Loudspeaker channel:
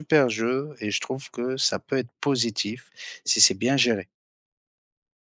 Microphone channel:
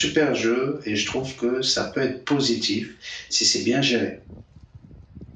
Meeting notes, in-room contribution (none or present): none